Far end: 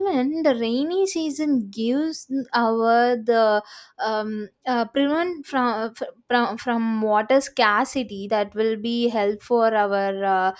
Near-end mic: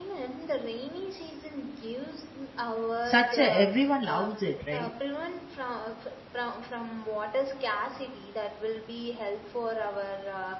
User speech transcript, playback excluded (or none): such a everyone loves it right